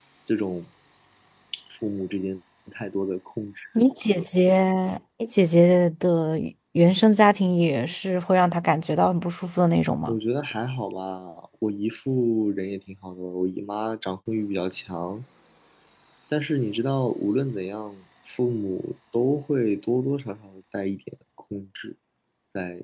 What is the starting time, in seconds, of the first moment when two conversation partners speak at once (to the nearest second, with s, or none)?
none